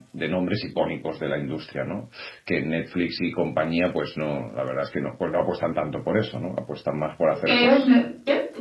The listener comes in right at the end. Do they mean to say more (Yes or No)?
Yes